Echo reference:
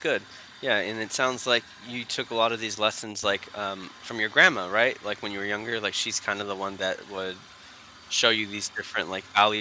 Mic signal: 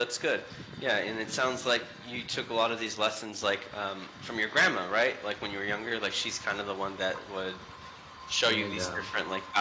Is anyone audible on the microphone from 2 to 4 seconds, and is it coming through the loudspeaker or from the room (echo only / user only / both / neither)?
echo only